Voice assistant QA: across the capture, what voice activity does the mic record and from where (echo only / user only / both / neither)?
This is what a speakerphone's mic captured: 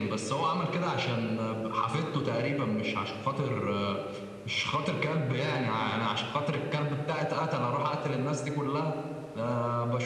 echo only